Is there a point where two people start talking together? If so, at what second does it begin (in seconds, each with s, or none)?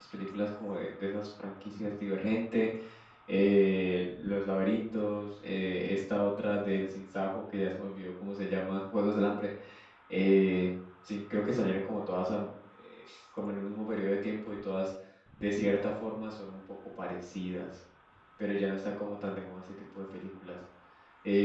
none